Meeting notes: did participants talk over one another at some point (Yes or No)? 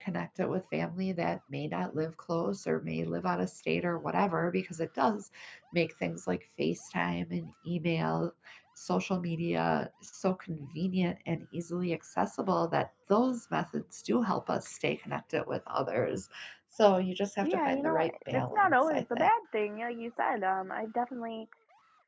Yes